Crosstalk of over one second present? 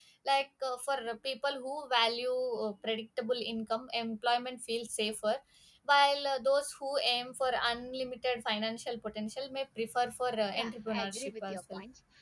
Yes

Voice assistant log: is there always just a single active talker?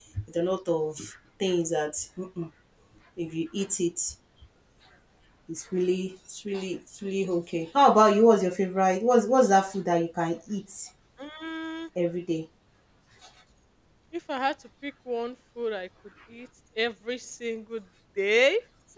Yes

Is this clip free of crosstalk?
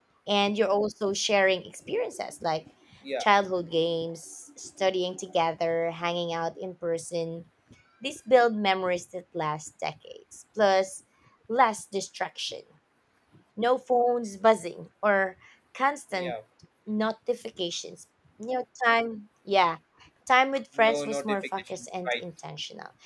No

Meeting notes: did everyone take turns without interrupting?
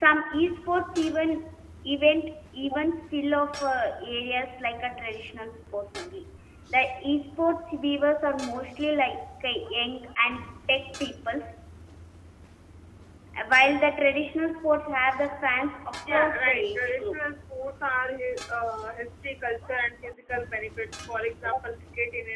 No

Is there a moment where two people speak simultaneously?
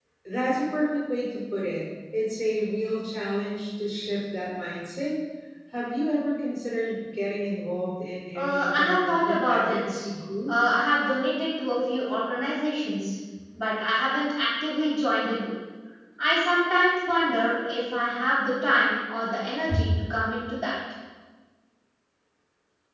Yes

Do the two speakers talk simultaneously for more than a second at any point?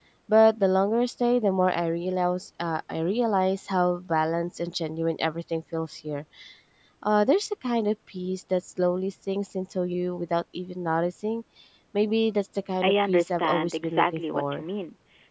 Yes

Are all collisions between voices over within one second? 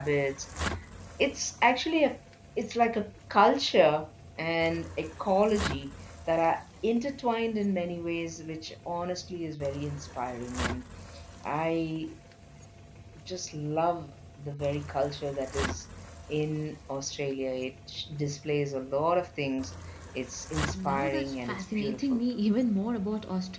No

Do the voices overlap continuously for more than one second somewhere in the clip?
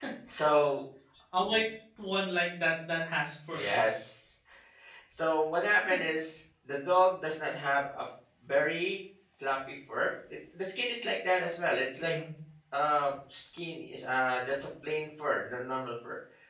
No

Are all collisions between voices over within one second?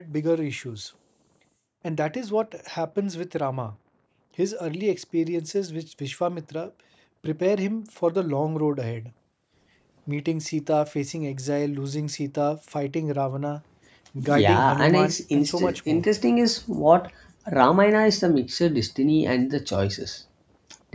No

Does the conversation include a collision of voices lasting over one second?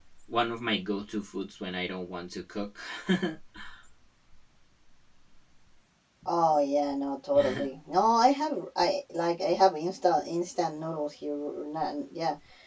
No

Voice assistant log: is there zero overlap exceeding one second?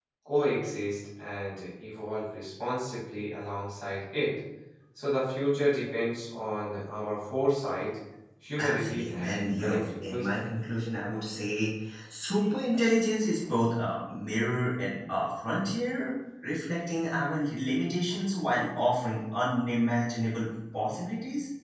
No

